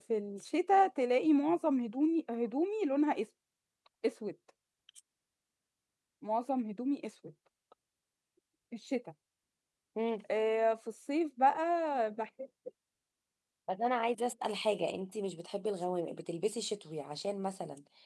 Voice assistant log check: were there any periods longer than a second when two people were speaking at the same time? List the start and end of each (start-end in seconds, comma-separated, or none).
none